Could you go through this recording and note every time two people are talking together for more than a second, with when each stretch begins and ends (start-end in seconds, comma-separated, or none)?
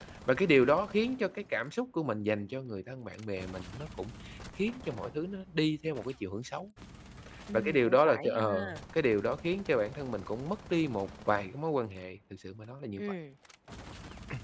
7.5-8.8